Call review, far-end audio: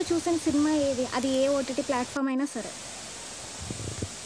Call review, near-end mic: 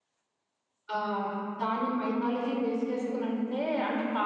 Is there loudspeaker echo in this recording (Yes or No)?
No